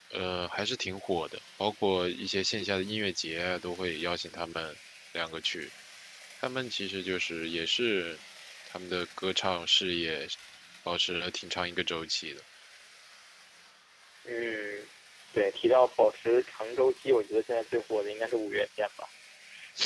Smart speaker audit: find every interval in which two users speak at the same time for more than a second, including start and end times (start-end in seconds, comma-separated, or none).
none